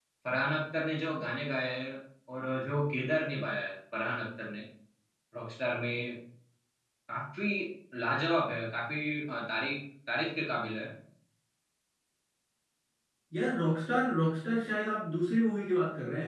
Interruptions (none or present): none